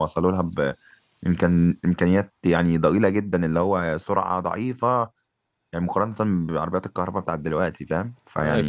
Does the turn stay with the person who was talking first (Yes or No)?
Yes